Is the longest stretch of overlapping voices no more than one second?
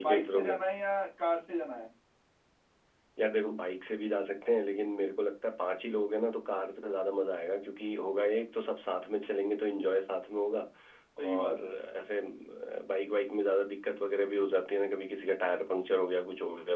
Yes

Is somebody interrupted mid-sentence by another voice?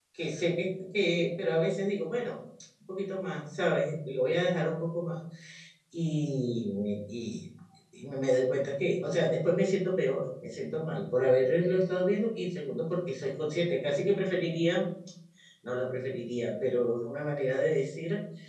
No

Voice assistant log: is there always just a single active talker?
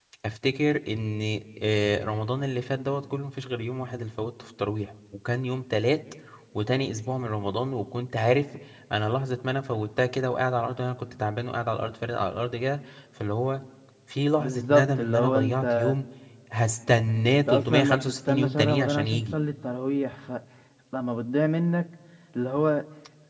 No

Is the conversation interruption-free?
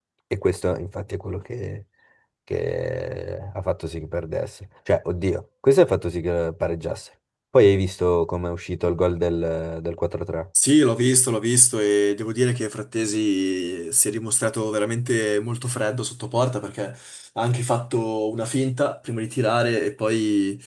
Yes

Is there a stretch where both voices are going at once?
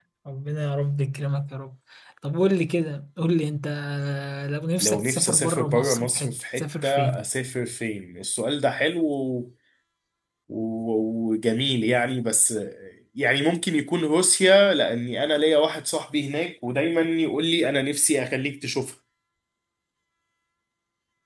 Yes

